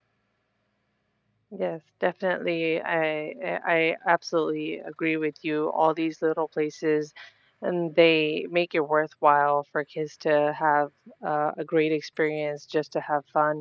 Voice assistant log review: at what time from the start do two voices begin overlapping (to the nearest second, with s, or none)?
none